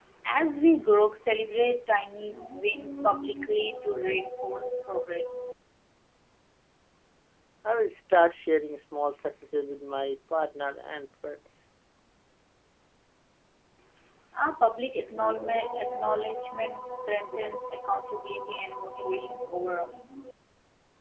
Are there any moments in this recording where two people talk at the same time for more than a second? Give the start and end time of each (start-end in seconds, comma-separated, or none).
none